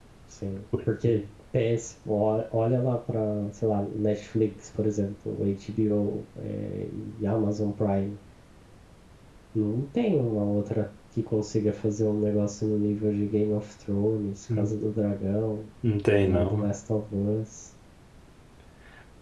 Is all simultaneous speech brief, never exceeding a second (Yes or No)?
Yes